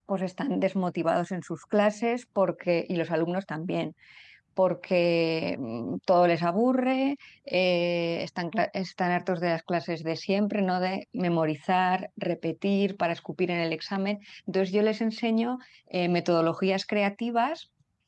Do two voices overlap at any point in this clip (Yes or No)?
No